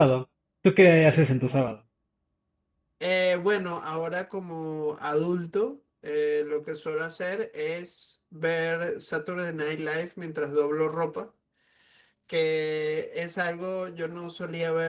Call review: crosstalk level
none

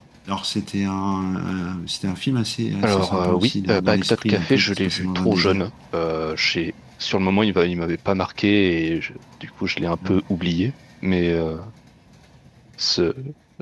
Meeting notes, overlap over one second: present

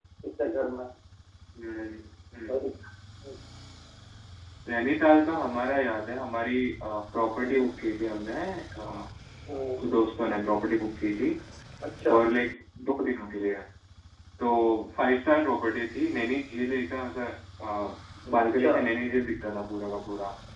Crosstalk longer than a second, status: none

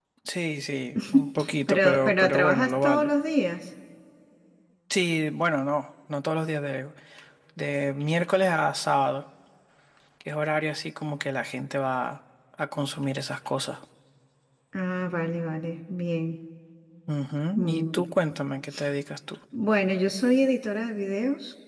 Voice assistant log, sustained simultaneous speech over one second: present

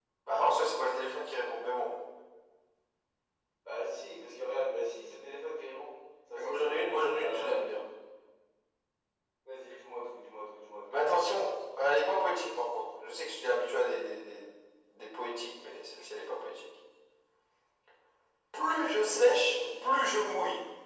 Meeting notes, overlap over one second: present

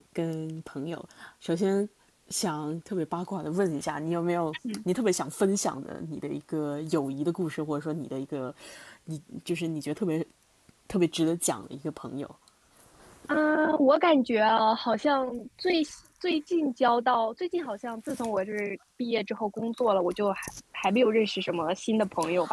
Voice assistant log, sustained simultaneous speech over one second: none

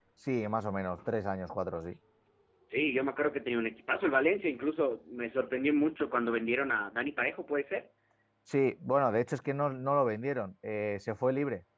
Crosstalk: none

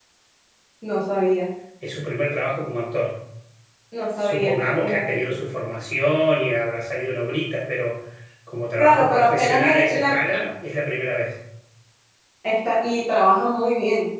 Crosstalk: present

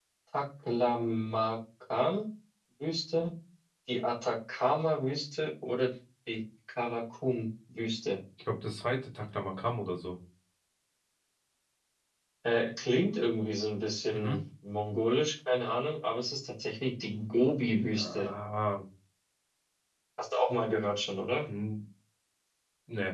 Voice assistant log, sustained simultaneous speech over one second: none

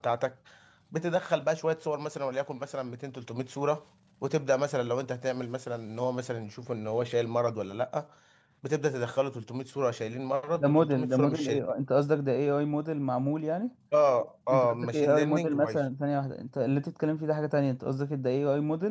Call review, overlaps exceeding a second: present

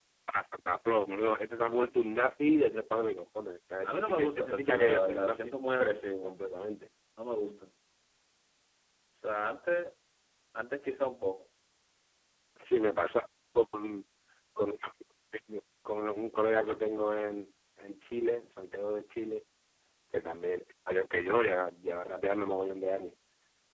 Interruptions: present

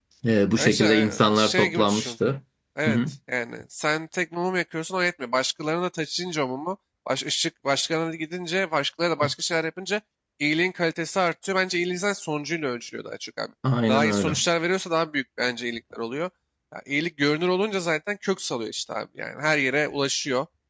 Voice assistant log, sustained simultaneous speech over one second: present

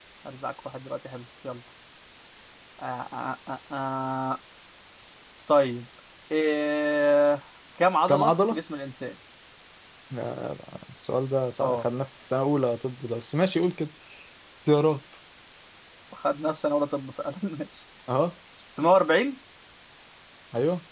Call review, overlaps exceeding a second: none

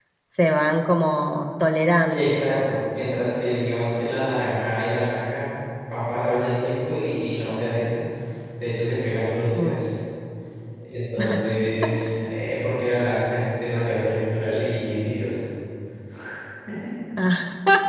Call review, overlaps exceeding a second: none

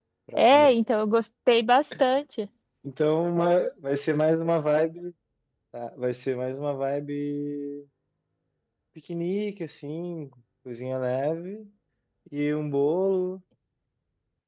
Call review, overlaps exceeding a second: none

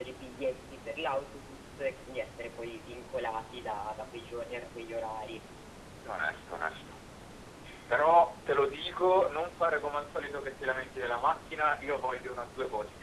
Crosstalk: none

